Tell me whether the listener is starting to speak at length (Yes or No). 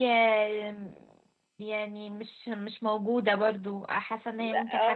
Yes